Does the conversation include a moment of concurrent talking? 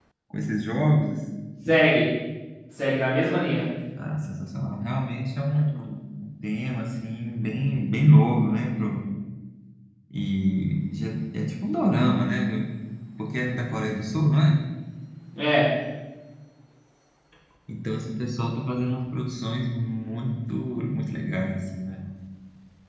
No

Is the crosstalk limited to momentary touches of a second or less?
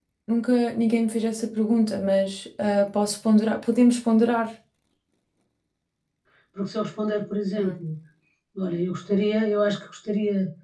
Yes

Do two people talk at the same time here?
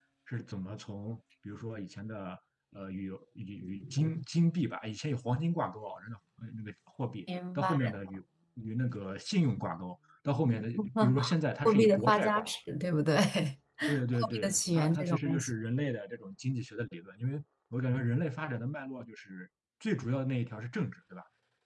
Yes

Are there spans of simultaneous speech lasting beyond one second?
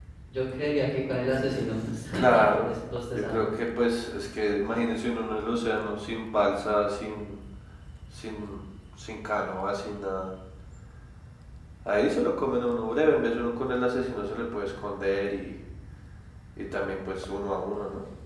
No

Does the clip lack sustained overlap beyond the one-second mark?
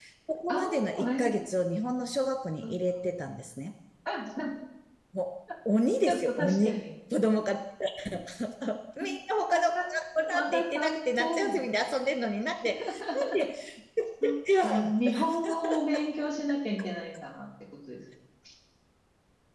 No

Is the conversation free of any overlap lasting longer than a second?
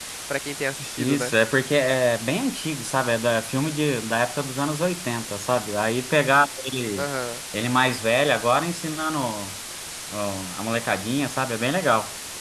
Yes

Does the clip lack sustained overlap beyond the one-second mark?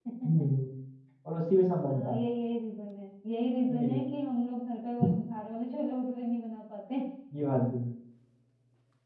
Yes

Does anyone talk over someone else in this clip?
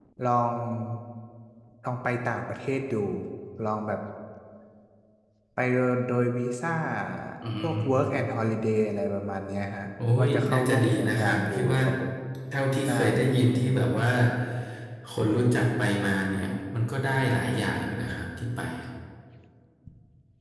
Yes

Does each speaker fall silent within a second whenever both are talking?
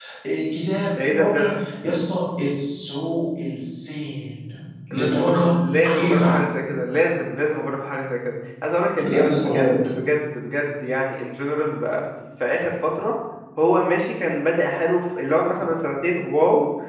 No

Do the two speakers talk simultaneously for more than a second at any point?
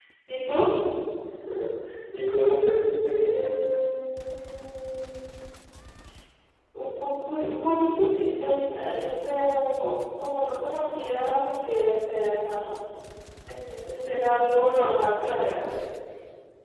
No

